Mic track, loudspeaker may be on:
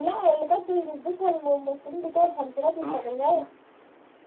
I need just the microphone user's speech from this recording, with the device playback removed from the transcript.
صح صح

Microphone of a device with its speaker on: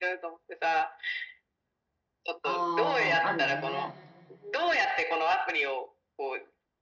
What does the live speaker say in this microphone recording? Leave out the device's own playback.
ああ、あるね。

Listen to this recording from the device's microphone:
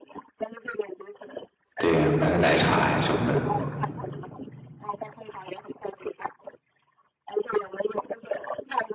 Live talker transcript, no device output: 对呀，买个奶茶呀什么的。

